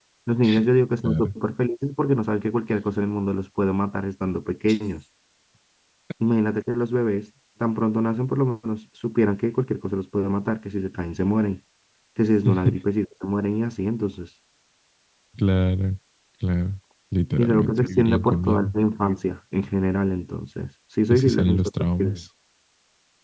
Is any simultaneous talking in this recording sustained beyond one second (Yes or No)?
Yes